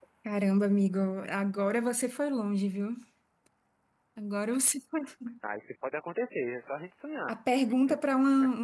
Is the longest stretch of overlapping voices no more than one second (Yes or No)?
Yes